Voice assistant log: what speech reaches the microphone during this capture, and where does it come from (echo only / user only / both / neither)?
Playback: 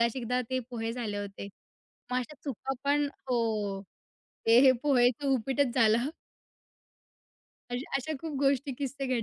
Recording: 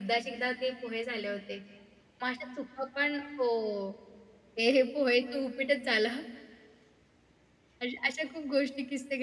echo only